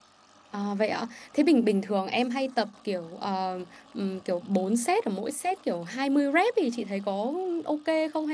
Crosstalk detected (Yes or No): No